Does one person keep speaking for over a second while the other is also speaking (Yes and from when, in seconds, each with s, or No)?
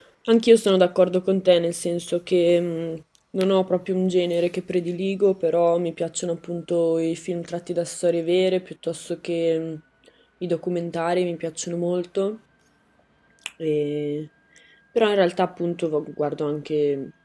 No